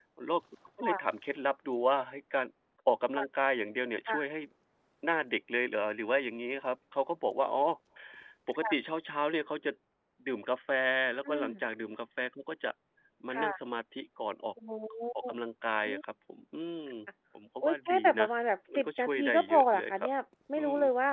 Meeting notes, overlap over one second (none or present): present